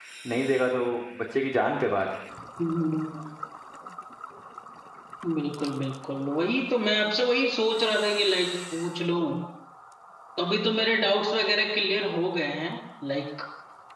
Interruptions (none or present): none